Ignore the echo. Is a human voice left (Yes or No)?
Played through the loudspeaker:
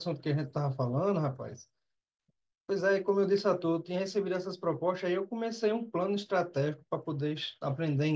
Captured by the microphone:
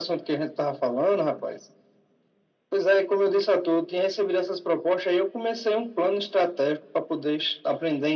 No